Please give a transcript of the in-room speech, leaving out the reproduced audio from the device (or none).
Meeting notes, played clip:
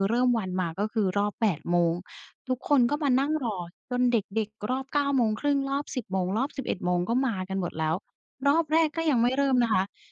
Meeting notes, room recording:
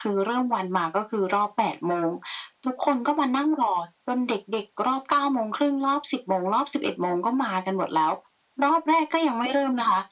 none